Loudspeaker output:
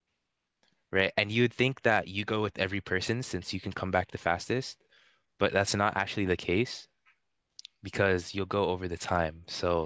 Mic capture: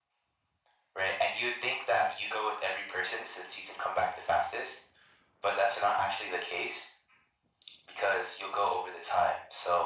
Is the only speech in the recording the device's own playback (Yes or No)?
Yes